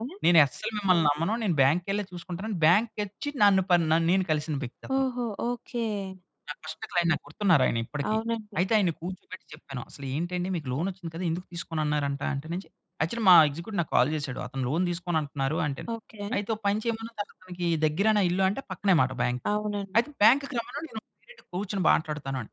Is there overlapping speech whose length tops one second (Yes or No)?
No